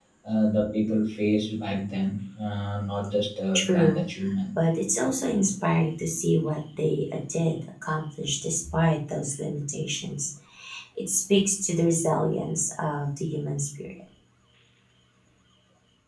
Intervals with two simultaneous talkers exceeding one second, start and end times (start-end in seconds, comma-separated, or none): none